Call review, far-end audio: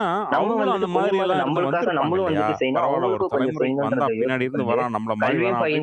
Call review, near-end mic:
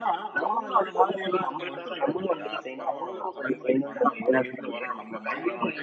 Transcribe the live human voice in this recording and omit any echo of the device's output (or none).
none